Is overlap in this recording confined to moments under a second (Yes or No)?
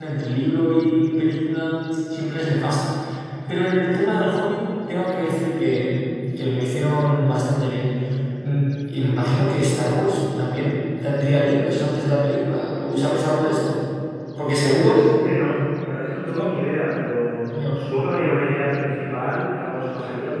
Yes